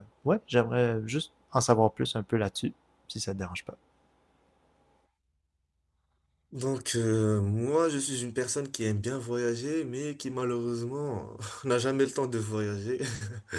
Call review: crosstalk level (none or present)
none